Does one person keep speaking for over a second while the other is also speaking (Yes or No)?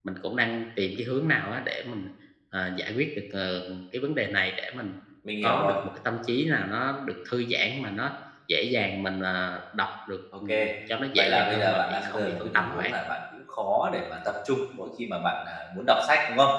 Yes